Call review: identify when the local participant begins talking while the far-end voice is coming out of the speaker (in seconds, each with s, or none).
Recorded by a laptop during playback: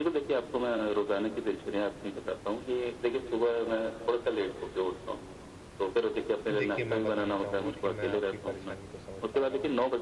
6.5 s